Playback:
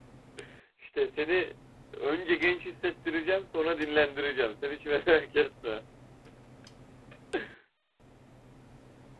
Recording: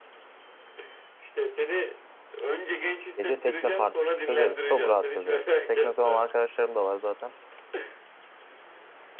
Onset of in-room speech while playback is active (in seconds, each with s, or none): 3.2 s